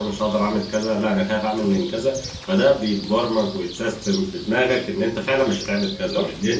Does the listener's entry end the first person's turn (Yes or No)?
No